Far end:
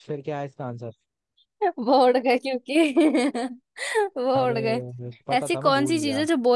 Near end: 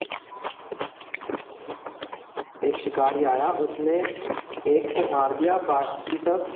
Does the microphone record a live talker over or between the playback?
Yes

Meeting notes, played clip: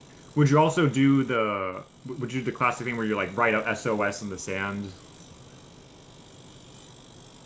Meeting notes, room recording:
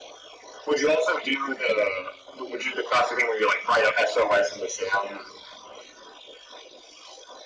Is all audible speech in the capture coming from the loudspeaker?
Yes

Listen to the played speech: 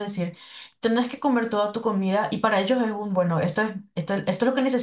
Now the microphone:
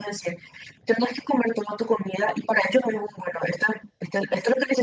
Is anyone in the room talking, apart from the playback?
No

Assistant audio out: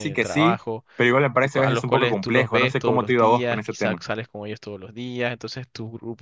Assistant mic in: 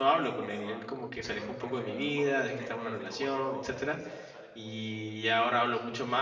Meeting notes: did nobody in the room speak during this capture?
No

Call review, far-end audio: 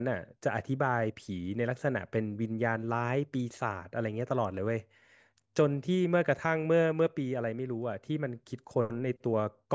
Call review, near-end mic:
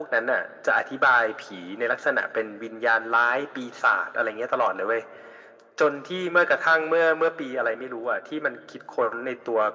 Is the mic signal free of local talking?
Yes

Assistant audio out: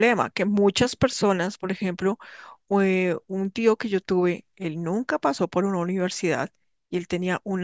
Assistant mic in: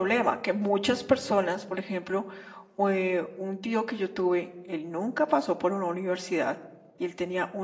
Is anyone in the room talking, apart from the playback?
No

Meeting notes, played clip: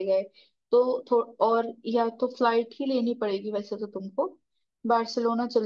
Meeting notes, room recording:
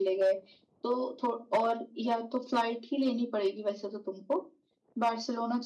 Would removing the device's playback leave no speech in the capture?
Yes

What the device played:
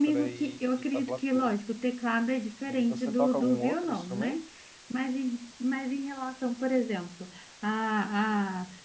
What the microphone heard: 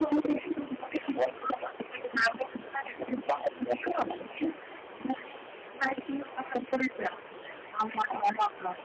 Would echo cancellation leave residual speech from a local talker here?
No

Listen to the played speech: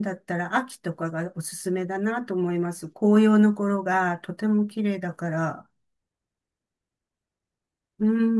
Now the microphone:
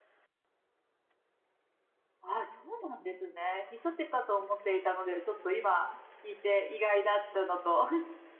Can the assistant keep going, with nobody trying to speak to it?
No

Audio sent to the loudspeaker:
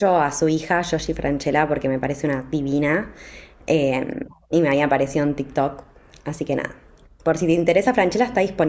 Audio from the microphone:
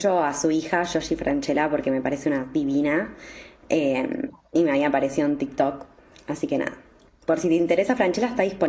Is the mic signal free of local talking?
Yes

